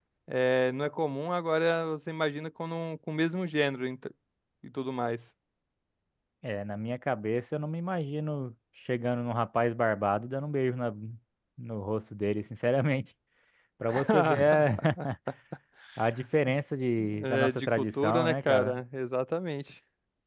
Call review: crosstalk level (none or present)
present